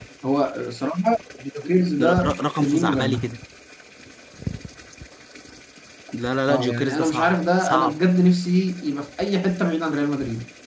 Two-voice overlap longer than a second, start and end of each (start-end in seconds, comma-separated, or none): 2.0-3.3, 6.5-8.0